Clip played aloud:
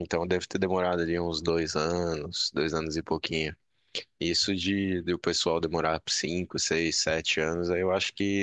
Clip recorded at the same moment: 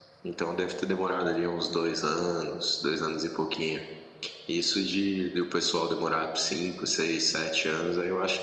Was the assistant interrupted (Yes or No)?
No